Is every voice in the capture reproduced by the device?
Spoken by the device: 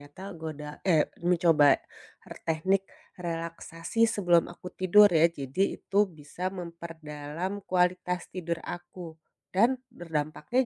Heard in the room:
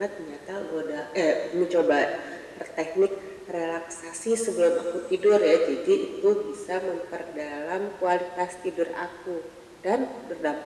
Yes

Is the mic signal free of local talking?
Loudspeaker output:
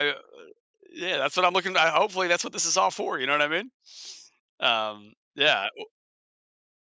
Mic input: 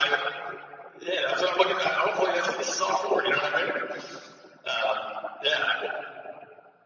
Yes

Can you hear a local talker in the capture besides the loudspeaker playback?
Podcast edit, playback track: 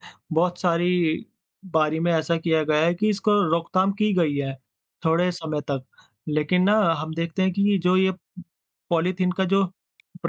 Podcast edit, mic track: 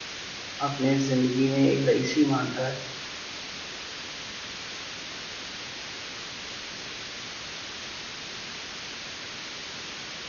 Yes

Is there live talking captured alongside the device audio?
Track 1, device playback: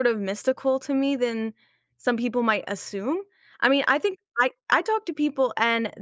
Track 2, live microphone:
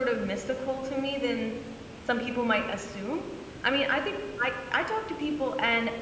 No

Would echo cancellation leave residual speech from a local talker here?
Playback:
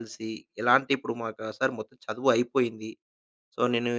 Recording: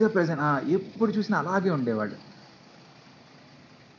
Yes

